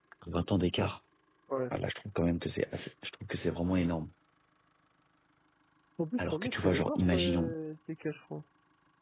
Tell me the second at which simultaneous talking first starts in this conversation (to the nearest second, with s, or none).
6 s